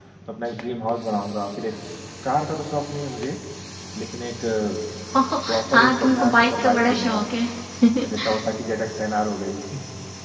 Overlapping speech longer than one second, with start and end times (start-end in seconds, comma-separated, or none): 5.7-7.2